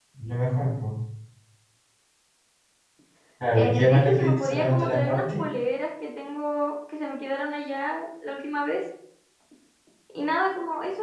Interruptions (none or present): present